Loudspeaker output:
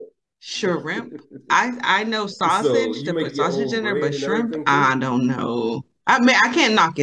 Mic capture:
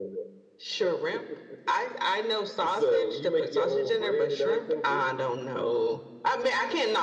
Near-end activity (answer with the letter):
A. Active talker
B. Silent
B